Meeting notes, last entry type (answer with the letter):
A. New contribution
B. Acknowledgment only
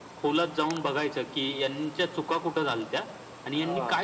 B